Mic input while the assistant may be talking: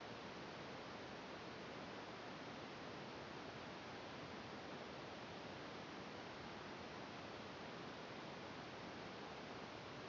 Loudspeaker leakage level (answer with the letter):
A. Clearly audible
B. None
B